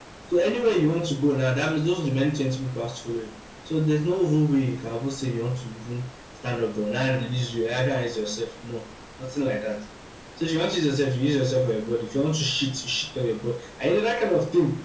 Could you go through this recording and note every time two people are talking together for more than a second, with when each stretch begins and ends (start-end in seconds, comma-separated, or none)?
none